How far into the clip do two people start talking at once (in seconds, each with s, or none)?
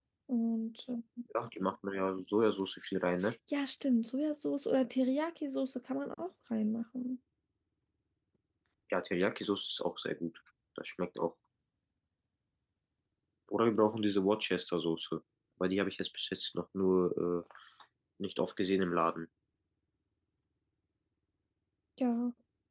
none